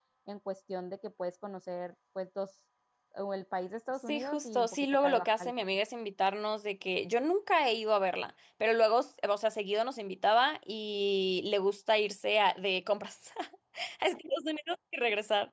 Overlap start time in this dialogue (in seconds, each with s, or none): 4.1 s